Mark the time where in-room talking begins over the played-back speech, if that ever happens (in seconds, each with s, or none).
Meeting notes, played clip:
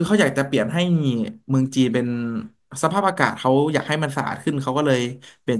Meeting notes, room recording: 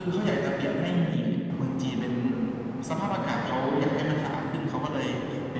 none